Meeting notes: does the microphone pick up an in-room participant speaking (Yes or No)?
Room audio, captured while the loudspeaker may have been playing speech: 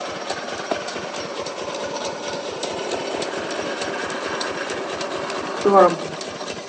Yes